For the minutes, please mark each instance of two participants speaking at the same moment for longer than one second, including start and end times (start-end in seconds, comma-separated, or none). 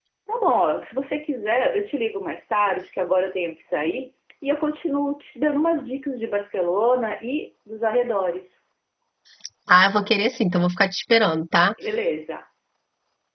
none